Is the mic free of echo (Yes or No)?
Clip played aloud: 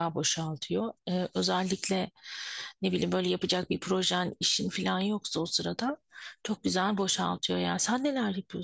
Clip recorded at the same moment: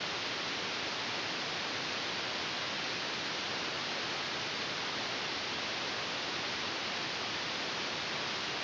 Yes